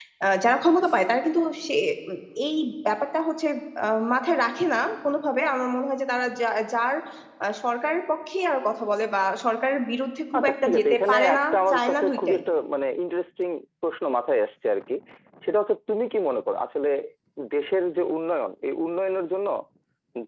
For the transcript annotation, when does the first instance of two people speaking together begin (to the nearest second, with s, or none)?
10 s